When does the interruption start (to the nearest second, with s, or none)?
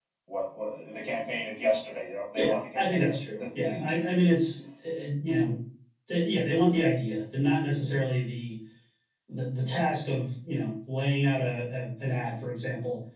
2 s